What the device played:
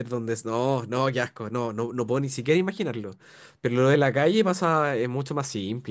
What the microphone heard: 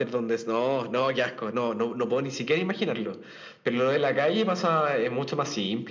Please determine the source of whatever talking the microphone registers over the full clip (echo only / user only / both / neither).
echo only